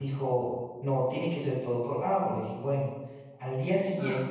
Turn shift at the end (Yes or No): No